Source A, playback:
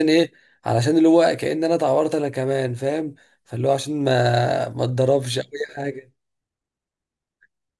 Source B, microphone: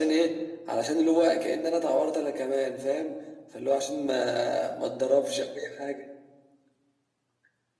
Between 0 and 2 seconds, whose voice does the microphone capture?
echo only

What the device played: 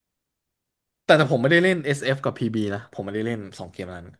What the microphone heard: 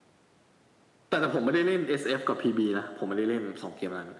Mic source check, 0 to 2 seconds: echo only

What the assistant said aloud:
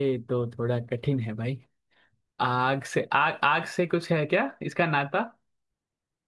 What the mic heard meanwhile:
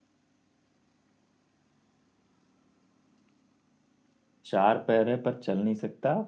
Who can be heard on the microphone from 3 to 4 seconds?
neither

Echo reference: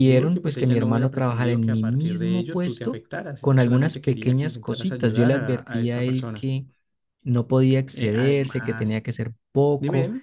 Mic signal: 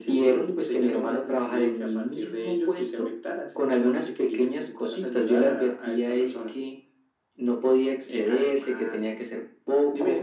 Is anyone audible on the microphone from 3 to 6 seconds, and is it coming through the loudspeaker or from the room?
echo only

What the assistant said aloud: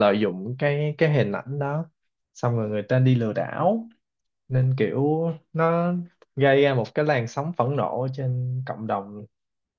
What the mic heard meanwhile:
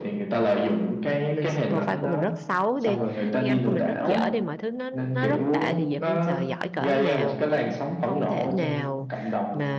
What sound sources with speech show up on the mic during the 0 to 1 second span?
echo only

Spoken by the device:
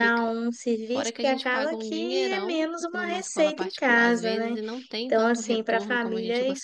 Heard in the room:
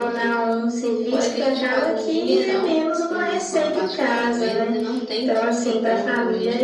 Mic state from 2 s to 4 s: echo only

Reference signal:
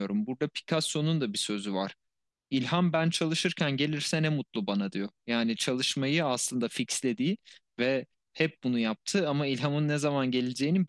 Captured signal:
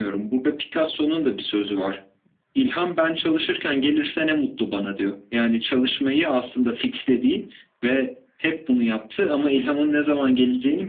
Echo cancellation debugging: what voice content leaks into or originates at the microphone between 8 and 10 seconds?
echo only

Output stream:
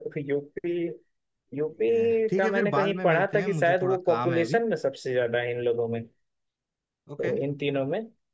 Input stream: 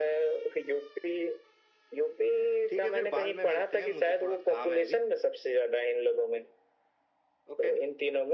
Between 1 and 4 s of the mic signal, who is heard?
echo only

